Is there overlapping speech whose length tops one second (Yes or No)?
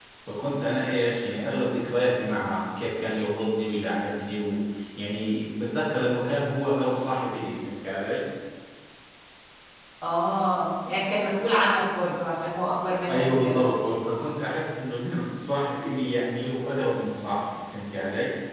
No